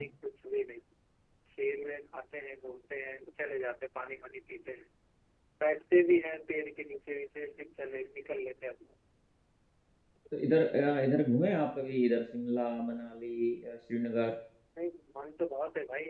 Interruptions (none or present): none